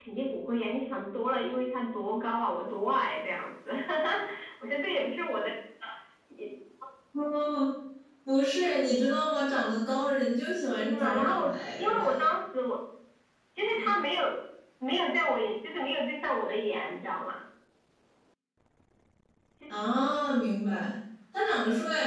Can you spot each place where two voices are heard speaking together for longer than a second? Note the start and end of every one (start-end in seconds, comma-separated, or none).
10.8-12.2